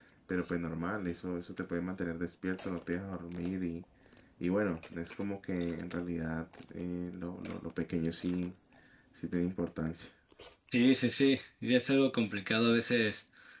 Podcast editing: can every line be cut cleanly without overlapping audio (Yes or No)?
Yes